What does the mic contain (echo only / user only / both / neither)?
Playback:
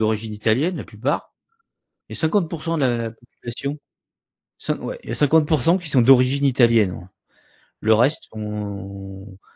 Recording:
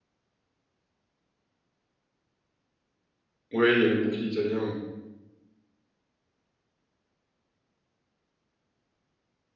user only